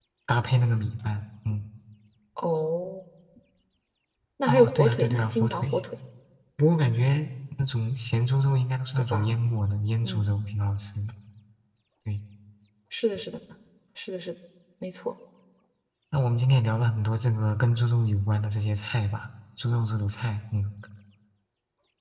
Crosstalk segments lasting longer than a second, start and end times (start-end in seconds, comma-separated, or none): 4.5-5.8